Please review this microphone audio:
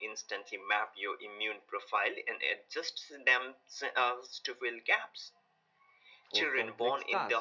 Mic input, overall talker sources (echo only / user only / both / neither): both